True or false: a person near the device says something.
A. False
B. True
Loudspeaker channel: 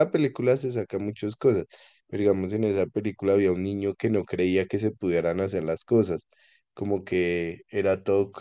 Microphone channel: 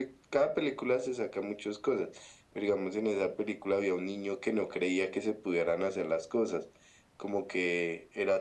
A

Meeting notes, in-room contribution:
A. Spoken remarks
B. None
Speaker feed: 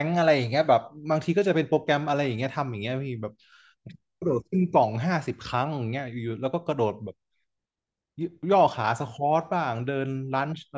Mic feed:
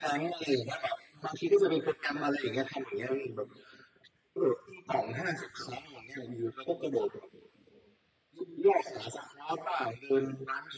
B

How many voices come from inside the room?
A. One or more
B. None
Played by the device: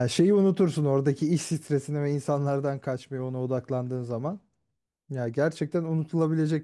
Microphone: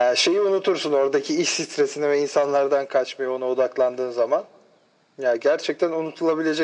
B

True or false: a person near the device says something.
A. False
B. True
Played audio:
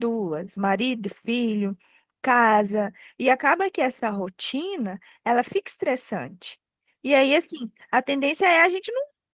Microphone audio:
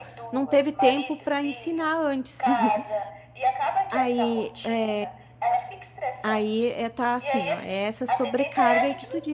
B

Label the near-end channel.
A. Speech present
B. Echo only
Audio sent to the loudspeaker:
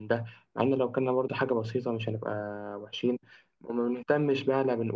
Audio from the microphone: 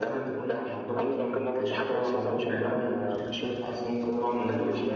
A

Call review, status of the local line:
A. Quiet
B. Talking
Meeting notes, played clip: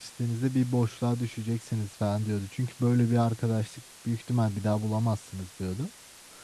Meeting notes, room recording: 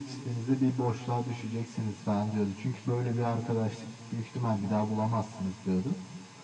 A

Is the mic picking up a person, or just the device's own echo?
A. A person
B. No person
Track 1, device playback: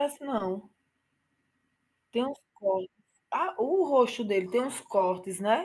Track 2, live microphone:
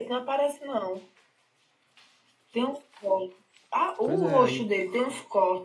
A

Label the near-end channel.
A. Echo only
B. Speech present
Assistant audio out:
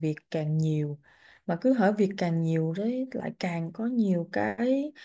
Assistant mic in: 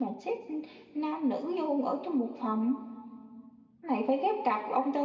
B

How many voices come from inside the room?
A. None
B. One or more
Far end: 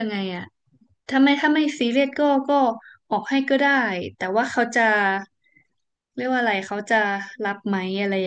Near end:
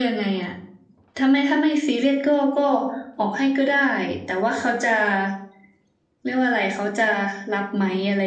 A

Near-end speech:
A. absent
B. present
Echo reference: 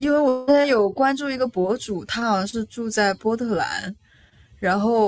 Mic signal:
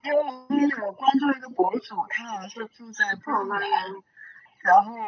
B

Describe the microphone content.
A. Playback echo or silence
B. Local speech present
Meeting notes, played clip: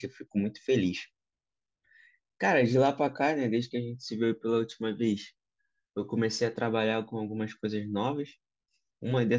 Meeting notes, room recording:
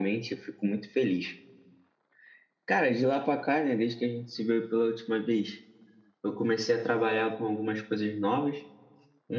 A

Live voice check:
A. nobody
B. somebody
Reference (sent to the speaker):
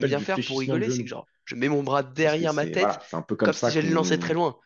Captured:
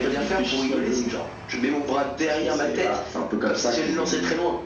A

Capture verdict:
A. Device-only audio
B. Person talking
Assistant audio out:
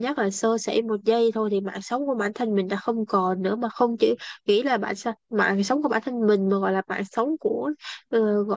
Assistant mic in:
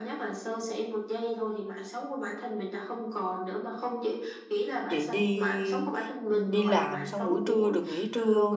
B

